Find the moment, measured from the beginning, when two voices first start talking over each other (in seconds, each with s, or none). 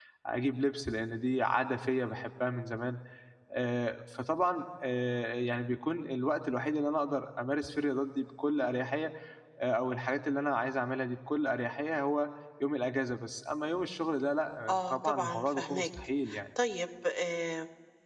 14.7 s